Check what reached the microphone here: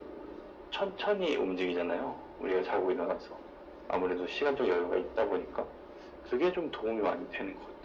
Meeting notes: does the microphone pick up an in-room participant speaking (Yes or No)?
No